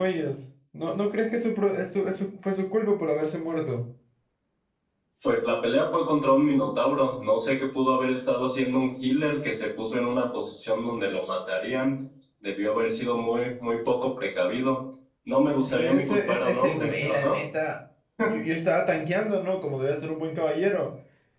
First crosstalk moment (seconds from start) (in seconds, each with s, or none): 15.6 s